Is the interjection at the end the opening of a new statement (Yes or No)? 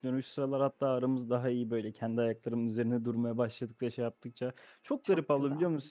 No